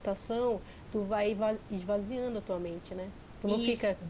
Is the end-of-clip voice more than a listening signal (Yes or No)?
No